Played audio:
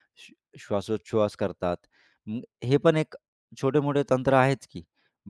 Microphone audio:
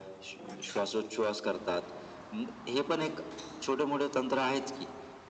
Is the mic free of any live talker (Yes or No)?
Yes